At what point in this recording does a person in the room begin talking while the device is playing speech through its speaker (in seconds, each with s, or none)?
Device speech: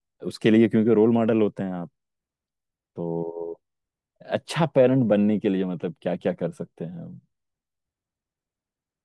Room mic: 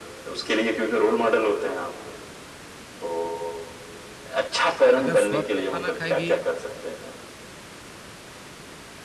4.9 s